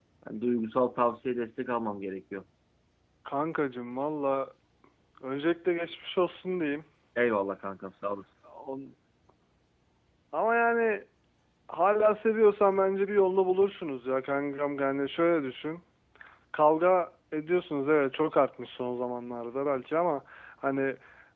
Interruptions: none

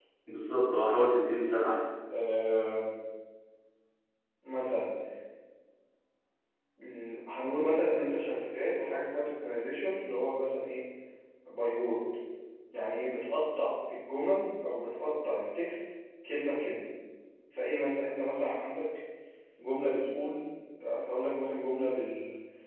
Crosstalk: none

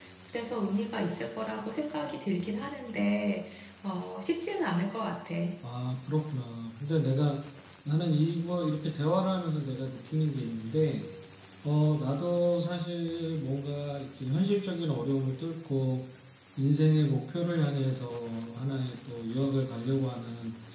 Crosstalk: none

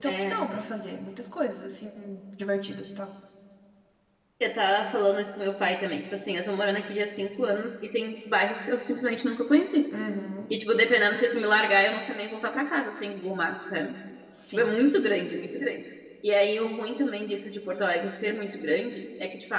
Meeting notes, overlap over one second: none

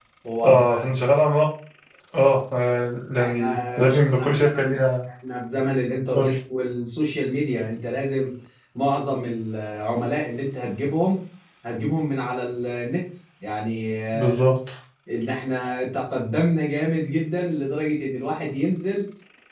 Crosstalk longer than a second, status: present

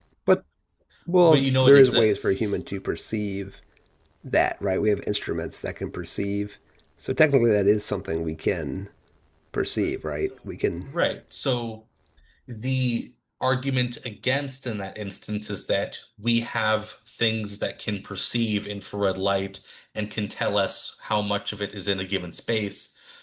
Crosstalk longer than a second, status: present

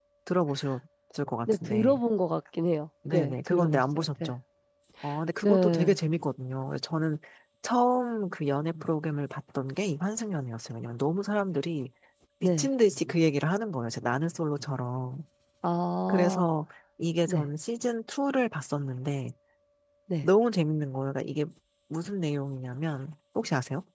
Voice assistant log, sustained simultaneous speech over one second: present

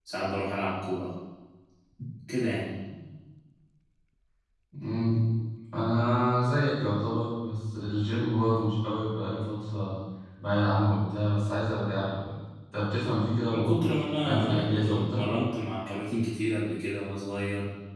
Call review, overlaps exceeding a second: present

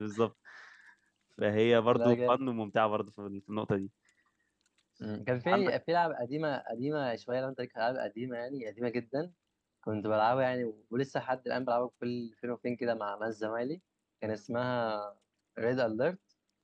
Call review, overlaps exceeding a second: none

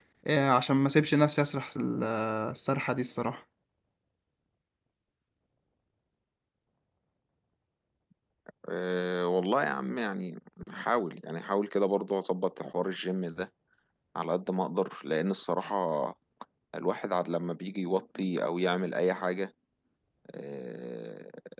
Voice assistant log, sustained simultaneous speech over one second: none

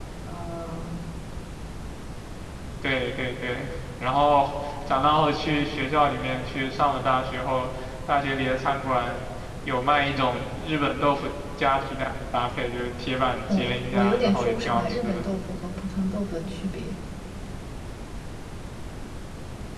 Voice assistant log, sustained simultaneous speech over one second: present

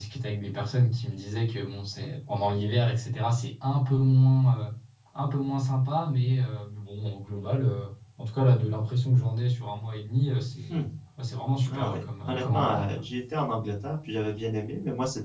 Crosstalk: present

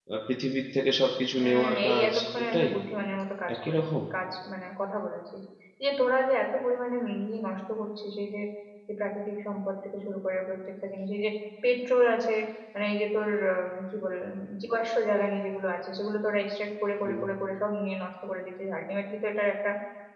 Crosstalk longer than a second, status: present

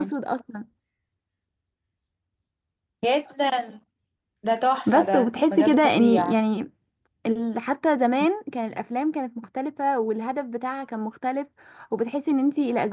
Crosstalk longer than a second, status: present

